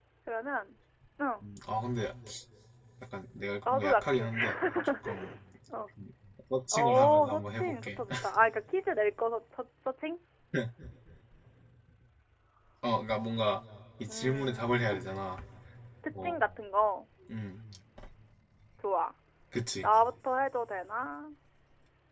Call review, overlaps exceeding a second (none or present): present